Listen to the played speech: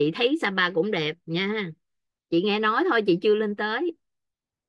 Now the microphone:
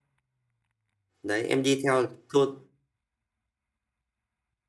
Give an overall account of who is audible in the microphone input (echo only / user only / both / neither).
user only